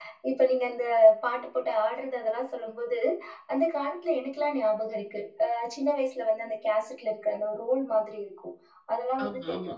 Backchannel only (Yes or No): Yes